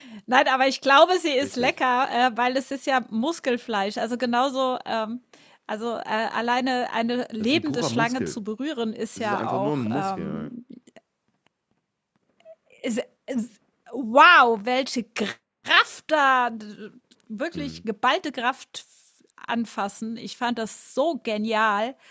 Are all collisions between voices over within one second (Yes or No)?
No